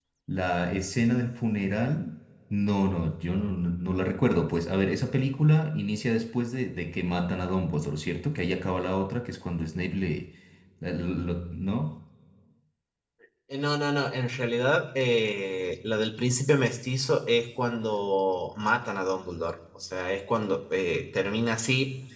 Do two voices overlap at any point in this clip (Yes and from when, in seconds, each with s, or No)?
No